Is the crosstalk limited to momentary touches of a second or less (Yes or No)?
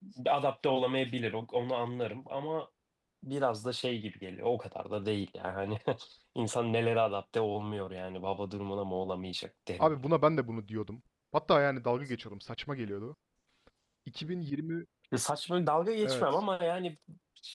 Yes